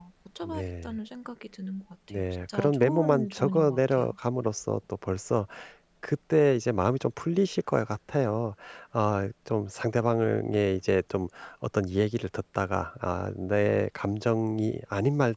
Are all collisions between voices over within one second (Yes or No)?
No